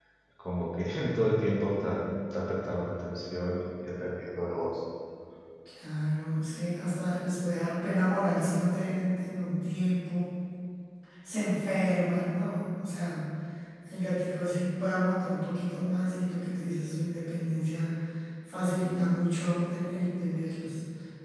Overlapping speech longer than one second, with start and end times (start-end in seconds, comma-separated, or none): none